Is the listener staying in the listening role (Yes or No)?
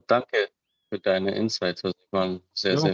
No